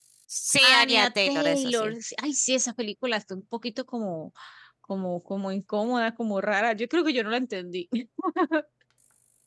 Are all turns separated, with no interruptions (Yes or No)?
No